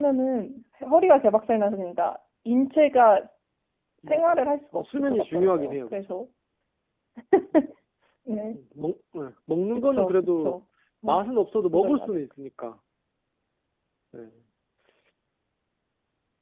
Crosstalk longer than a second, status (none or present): present